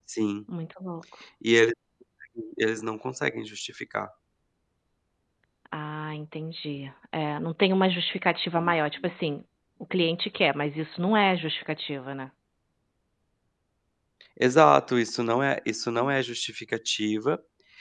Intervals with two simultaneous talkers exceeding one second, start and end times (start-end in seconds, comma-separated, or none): none